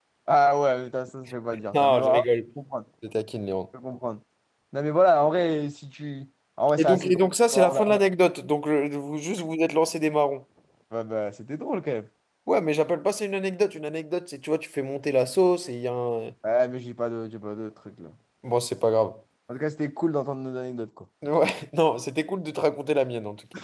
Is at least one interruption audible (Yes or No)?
Yes